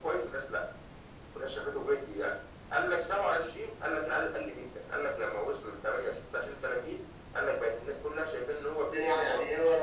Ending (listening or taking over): taking over